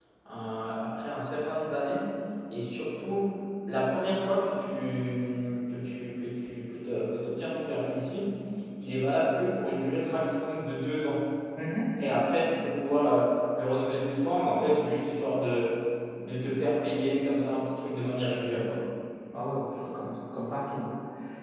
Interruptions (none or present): none